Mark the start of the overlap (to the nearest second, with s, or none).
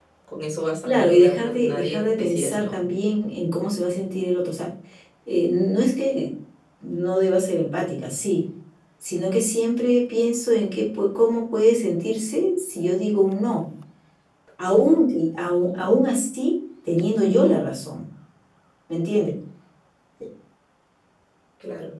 1 s